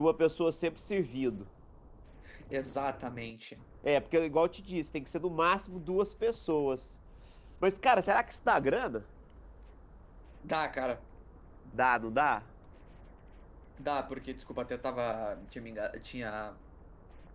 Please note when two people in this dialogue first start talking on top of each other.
none

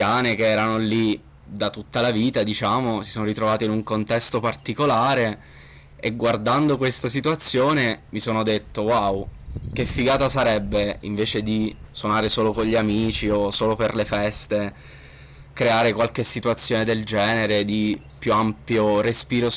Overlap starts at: none

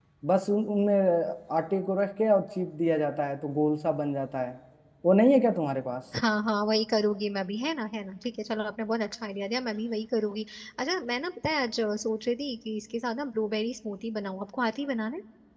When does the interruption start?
none

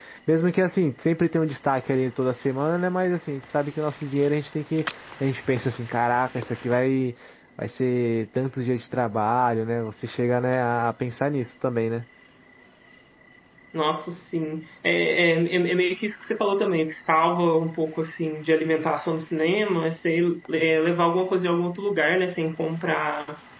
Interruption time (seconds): none

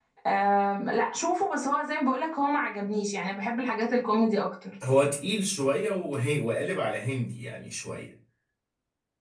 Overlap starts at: none

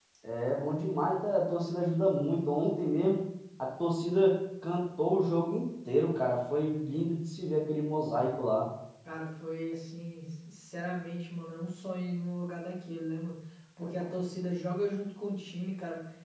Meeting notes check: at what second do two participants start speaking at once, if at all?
none

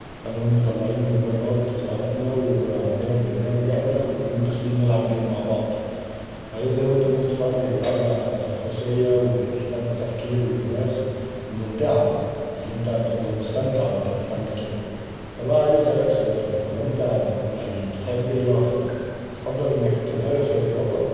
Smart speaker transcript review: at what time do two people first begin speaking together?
none

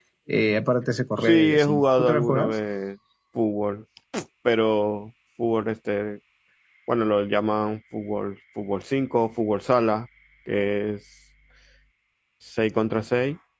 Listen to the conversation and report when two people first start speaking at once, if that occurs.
1.2 s

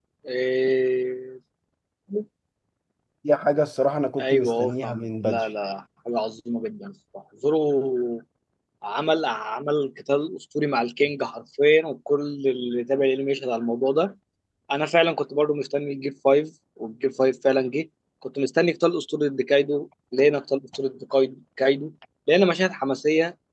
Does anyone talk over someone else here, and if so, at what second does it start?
4.2 s

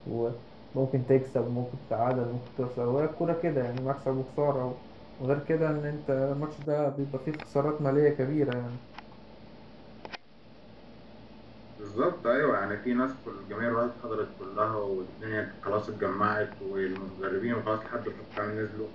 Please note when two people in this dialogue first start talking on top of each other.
none

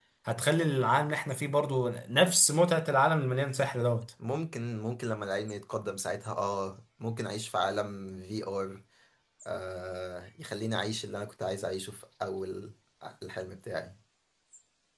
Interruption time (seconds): none

